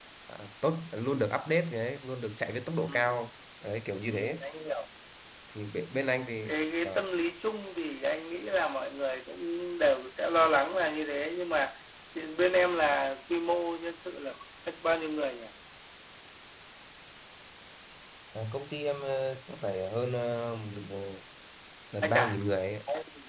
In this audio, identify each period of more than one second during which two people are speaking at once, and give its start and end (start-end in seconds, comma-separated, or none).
none